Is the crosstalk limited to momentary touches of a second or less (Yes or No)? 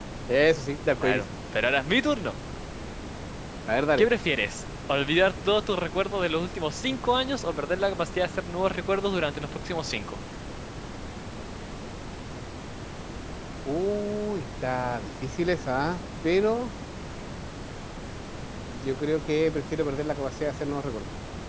Yes